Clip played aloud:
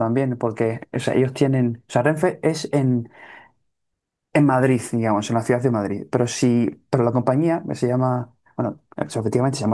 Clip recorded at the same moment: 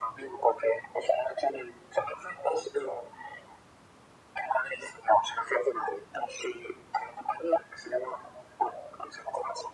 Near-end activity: none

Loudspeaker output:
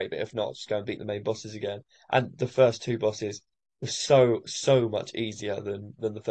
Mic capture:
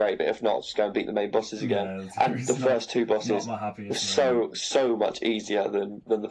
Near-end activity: present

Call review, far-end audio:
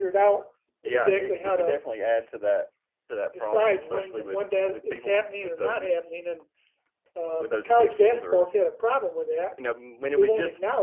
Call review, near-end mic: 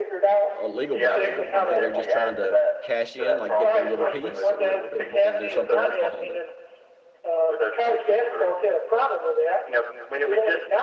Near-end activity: present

